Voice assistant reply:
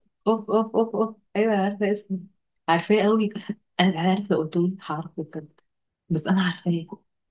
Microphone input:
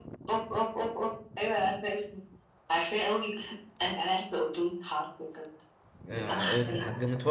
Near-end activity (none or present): present